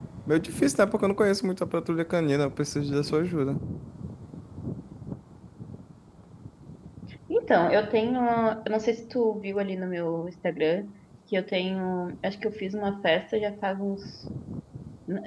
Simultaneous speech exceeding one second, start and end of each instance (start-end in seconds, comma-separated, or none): none